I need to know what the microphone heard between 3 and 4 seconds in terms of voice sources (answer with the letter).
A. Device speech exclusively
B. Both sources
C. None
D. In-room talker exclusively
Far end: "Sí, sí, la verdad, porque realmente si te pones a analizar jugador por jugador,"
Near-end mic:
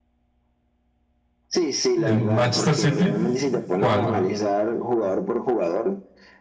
B